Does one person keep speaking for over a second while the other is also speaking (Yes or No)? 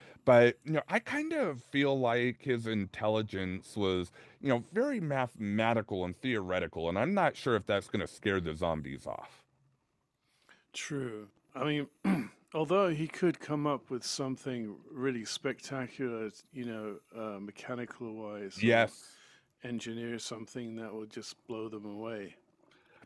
No